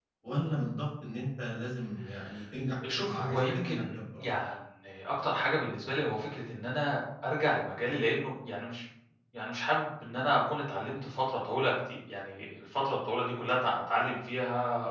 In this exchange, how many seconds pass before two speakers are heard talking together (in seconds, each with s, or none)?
2.9 s